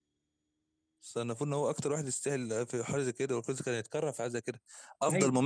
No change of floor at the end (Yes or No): Yes